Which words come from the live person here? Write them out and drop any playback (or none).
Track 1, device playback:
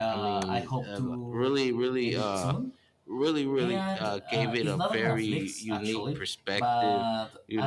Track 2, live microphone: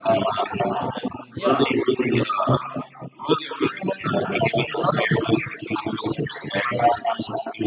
Yeah.